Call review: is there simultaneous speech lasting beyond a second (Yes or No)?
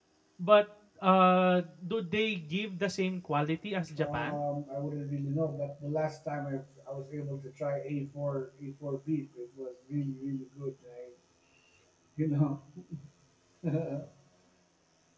No